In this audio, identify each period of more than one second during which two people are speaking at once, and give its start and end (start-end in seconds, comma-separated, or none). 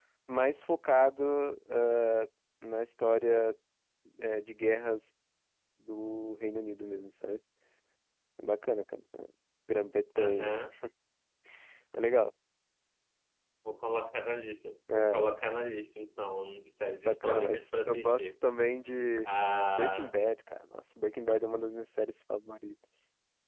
17.1-18.3